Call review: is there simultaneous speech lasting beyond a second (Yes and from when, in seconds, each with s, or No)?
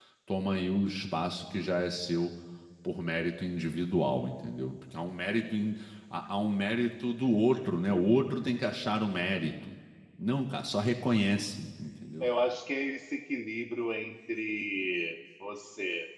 No